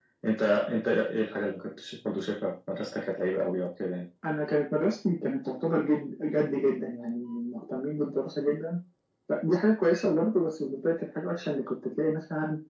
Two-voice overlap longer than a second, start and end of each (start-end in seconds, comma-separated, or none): none